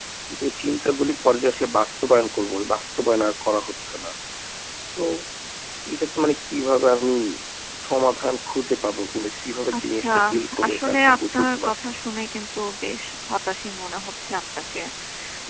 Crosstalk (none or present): present